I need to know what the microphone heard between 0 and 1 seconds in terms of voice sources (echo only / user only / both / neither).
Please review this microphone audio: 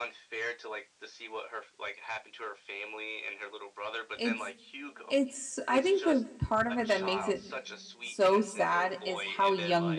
echo only